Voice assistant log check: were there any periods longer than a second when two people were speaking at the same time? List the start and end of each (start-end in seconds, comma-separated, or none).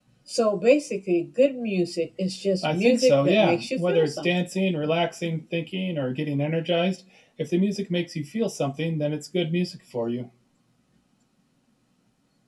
2.6-4.3